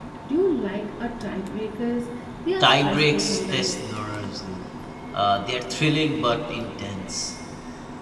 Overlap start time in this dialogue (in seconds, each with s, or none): 2.6 s